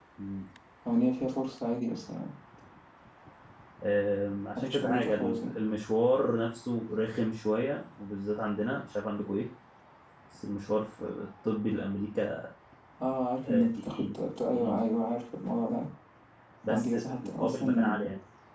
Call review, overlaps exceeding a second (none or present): present